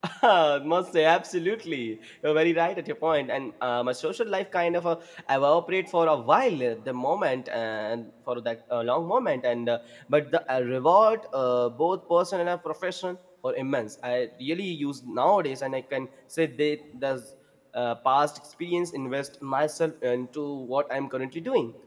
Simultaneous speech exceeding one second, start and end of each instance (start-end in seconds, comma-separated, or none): none